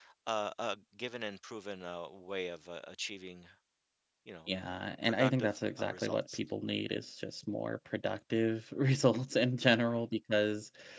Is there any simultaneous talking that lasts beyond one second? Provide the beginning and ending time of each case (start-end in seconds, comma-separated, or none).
5.0-6.4